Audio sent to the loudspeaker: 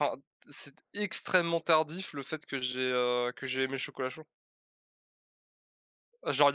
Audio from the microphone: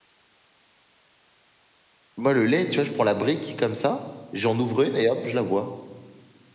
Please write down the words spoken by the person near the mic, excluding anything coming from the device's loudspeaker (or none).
Moi, le lait, tu vois, je prends la brique comme ça, j'en ouvre une et hop, je la bois